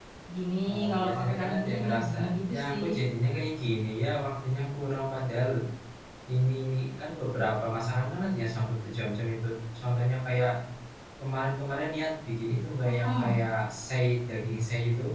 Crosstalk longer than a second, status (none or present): present